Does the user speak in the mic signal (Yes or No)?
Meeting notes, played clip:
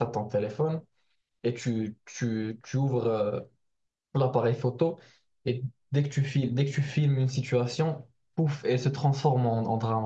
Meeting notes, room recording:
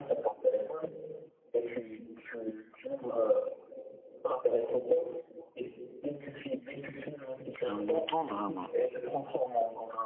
Yes